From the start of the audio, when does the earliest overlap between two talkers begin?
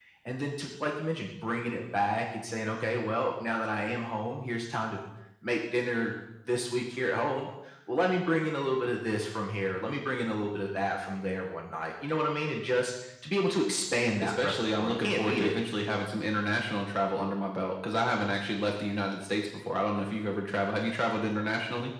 14.2 s

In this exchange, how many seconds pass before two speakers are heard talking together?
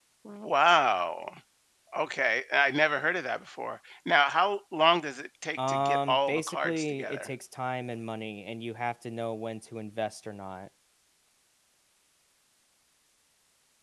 5.6 s

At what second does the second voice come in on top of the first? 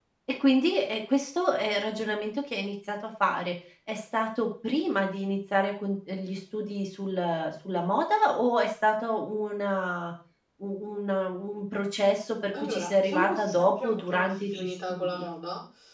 12.5 s

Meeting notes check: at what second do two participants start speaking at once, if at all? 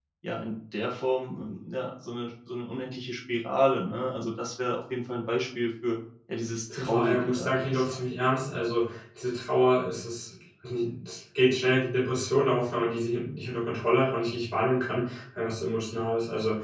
6.7 s

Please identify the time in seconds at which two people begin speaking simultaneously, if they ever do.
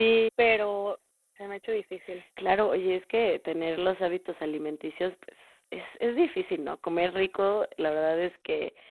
none

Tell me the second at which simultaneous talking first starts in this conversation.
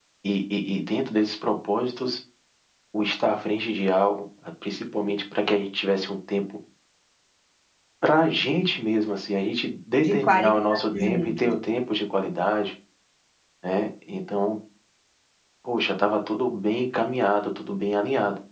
10.0 s

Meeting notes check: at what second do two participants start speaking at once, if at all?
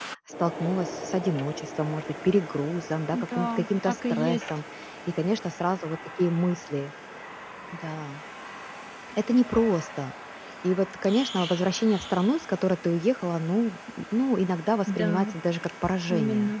3.1 s

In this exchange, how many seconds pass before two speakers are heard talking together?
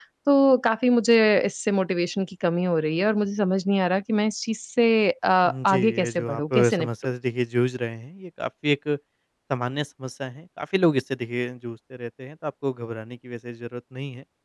5.7 s

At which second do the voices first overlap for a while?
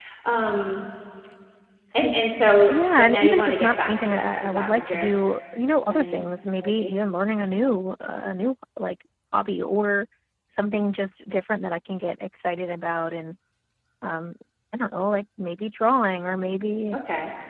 2.7 s

